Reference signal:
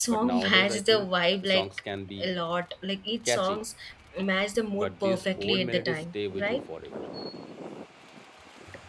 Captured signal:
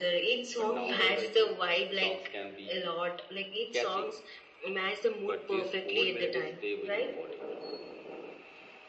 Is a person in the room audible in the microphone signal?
No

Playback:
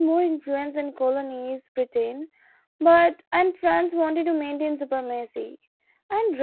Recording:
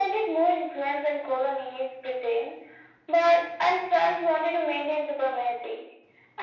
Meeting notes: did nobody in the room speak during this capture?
Yes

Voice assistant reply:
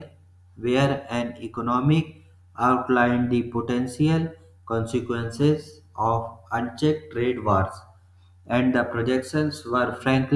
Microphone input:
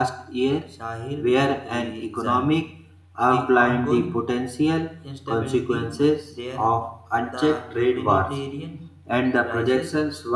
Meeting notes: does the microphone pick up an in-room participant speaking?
Yes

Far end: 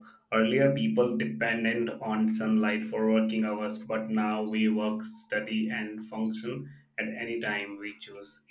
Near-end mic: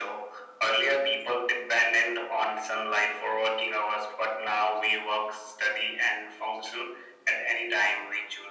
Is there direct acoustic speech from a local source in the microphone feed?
No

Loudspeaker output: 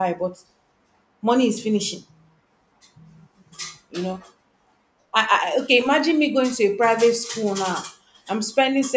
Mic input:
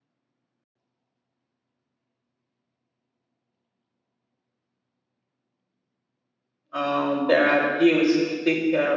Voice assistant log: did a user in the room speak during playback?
Yes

